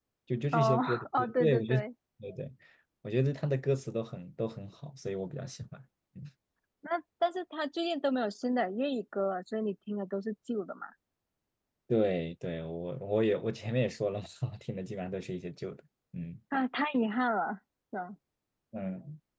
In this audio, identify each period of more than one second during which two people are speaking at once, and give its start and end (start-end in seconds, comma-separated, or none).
0.5-1.8